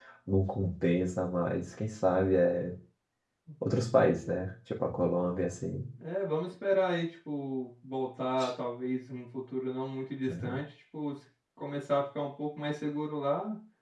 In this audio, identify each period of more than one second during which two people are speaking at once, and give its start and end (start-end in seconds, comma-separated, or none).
none